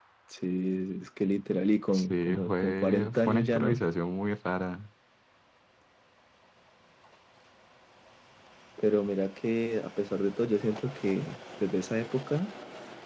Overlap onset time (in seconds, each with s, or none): 1.9 s